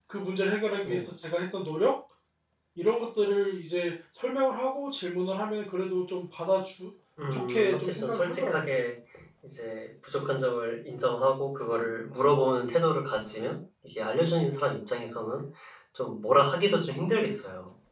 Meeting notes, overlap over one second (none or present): present